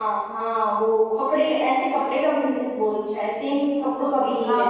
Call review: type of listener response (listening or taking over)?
taking over